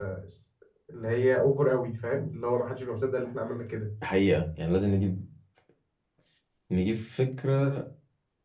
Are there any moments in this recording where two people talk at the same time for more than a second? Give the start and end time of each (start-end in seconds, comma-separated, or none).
none